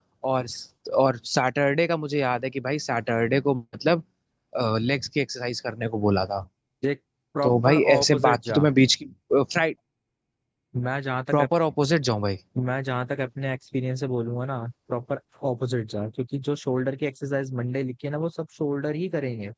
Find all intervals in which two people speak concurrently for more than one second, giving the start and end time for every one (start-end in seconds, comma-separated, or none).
7.4-8.6